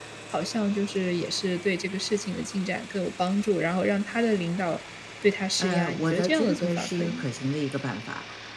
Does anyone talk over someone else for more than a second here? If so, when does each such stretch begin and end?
5.6-7.2

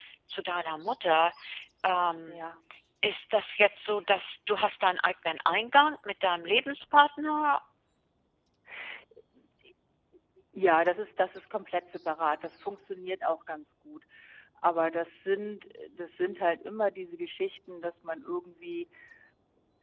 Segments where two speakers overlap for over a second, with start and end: none

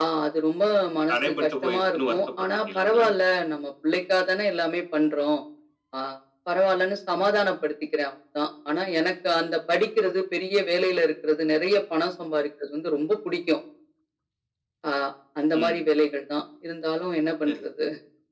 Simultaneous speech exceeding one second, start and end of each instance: 1.1-3.1

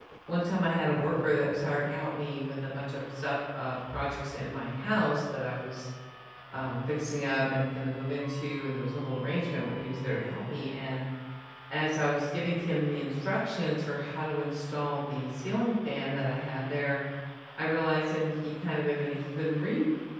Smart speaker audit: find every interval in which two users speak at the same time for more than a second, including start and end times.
none

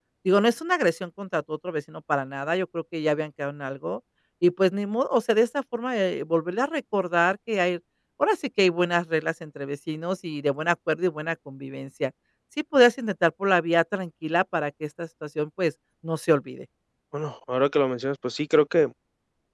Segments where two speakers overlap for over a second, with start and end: none

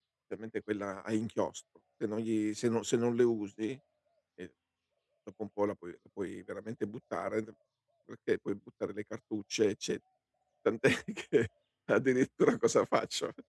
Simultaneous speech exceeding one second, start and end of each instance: none

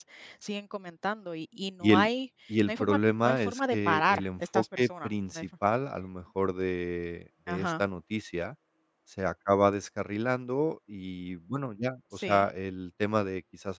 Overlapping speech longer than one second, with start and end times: 2.7-5.5

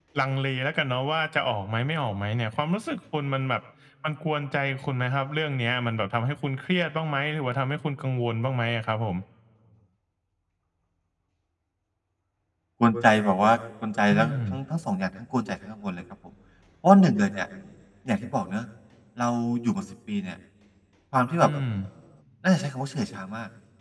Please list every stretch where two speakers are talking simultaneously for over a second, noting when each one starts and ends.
none

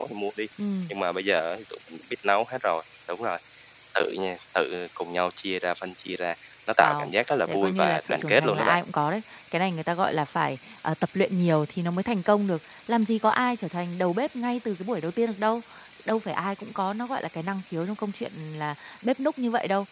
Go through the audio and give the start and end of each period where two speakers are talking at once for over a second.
7.5-8.8

